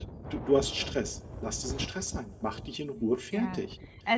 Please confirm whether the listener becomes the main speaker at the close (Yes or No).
Yes